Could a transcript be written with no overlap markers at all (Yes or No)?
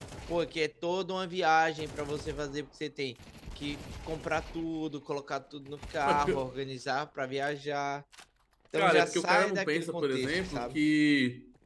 No